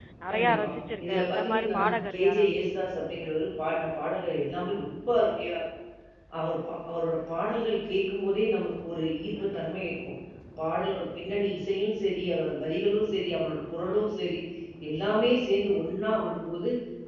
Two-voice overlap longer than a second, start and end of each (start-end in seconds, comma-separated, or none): 1.1-2.5